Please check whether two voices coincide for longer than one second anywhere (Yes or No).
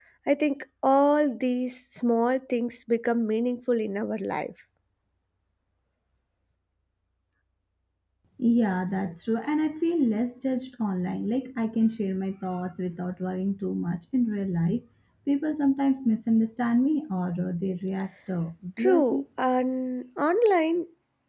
No